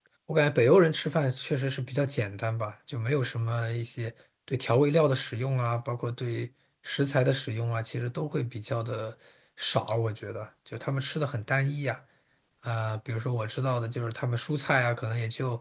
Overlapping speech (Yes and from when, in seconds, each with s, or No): No